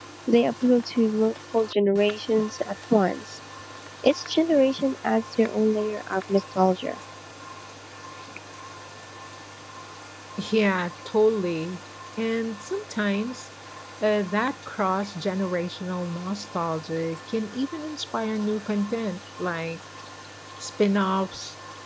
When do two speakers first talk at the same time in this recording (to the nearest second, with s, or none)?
none